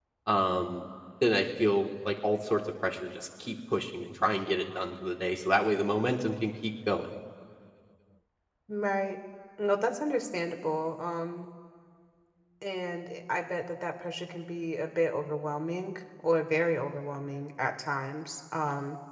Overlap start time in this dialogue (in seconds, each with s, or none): none